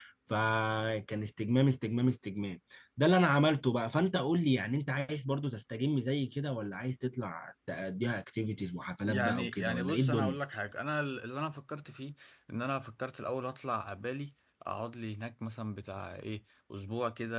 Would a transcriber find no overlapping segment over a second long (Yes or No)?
No